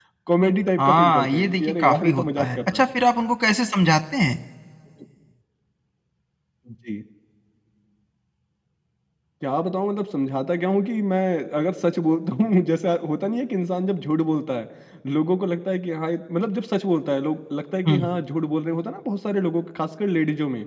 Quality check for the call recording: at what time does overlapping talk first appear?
0.8 s

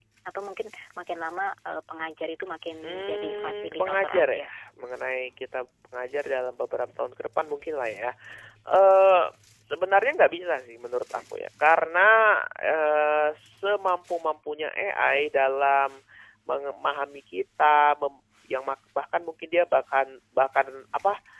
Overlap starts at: 2.8 s

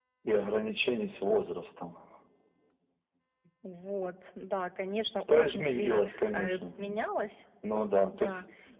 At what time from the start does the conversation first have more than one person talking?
5.3 s

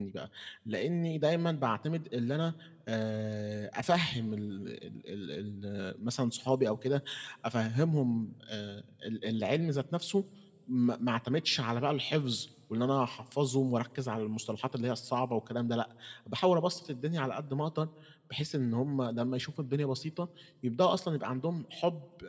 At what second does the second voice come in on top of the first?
none

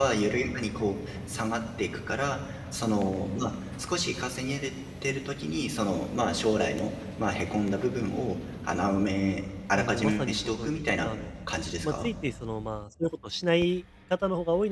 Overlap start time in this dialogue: 9.7 s

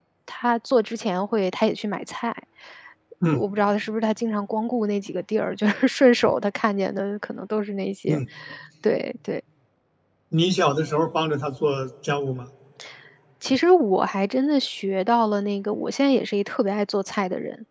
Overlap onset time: none

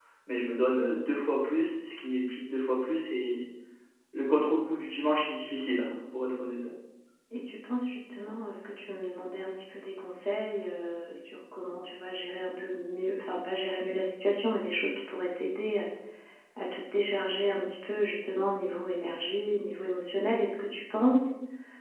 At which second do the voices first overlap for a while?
none

